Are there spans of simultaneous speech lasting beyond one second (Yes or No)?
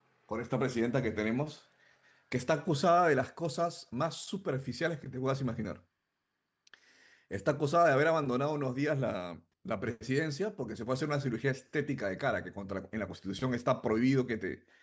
No